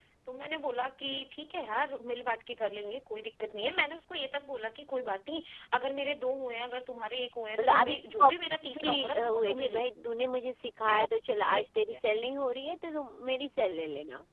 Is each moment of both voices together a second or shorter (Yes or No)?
No